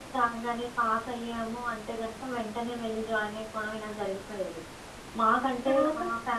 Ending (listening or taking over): listening